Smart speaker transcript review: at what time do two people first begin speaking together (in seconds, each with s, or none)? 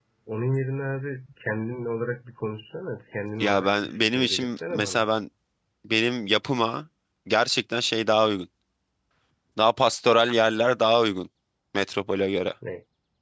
3.4 s